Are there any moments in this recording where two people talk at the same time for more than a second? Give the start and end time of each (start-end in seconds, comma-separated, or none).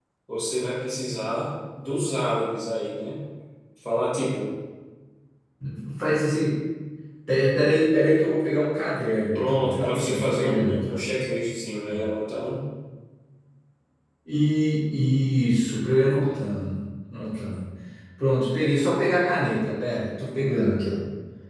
9.3-11.0